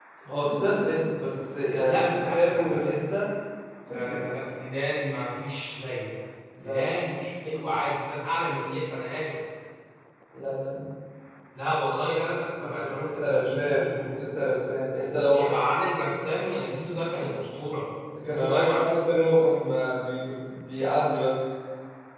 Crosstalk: present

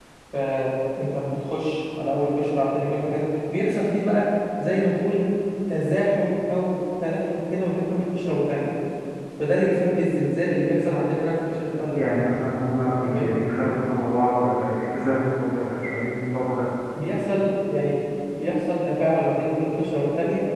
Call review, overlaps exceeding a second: none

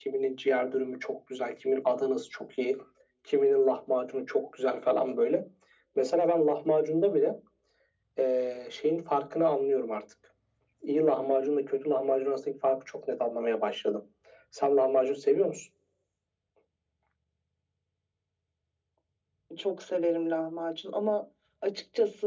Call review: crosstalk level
none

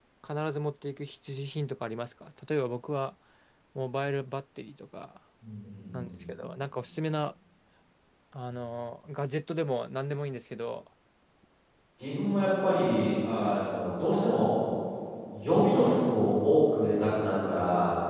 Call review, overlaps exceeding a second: none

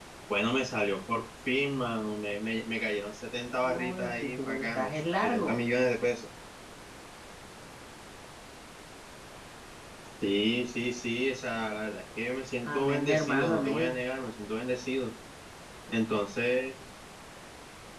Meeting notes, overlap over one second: present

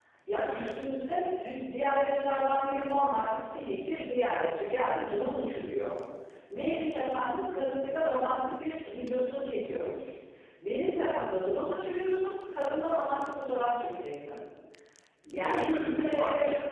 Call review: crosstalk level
present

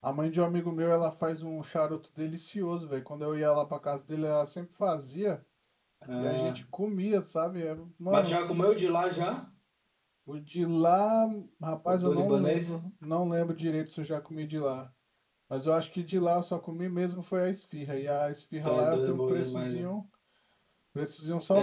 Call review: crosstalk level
present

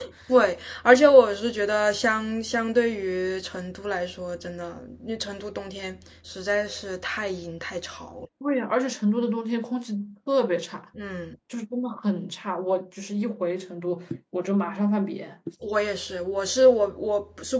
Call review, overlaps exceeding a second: none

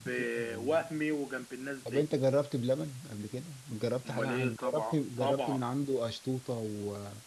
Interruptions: present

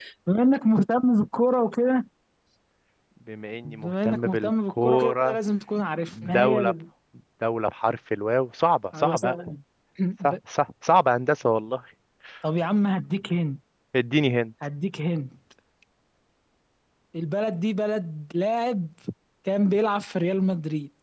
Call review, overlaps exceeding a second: present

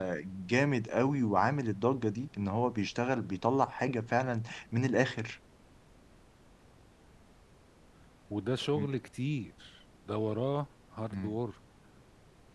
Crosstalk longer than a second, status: none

